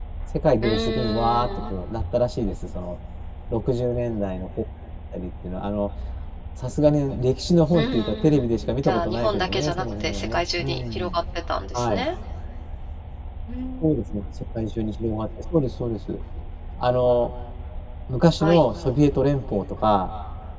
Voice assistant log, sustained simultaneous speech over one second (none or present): present